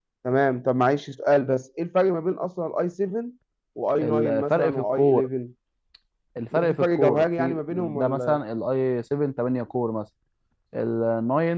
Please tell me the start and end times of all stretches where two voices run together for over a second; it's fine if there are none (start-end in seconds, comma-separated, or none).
4.0-5.3, 6.5-8.4